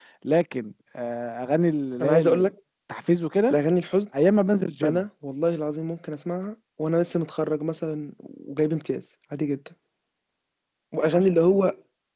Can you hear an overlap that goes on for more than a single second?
No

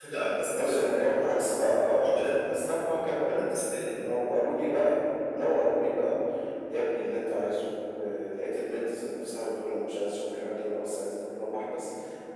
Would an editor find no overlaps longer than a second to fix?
Yes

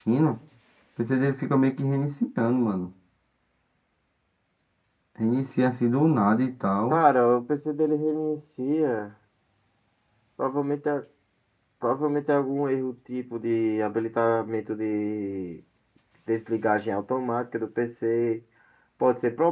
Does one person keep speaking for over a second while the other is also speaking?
No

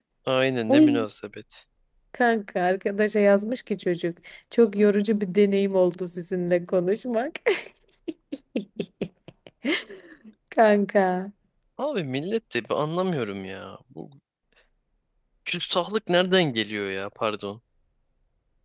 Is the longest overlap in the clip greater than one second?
No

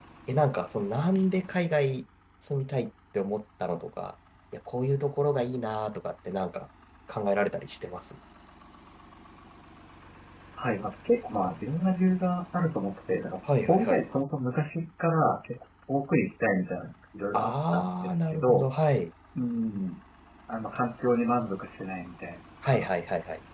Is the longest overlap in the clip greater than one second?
Yes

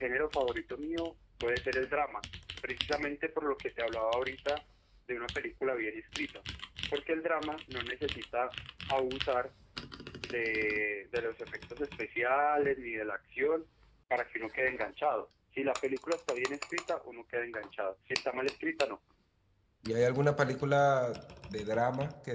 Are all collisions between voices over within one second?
Yes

